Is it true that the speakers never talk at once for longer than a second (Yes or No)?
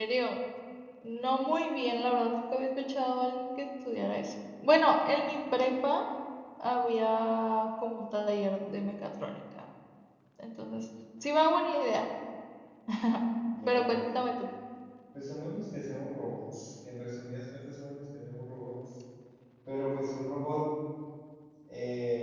Yes